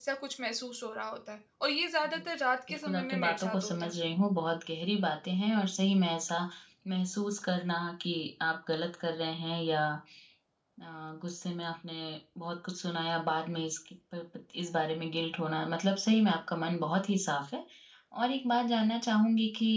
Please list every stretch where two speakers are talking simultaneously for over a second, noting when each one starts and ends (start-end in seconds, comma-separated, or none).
2.7-3.9